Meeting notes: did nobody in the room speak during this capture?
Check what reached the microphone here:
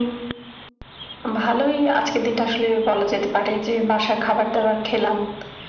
Yes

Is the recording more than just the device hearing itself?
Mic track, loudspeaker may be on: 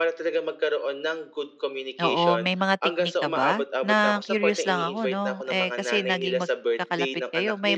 Yes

